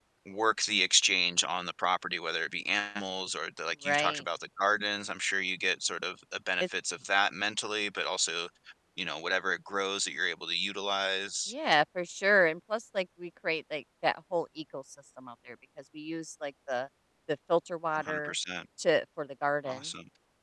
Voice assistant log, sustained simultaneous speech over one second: none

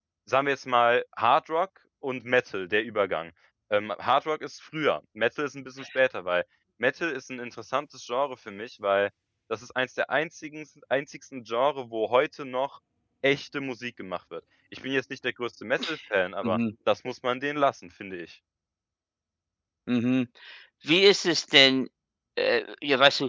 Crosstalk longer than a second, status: none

